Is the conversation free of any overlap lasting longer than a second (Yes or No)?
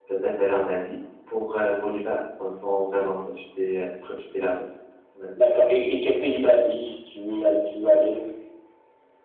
Yes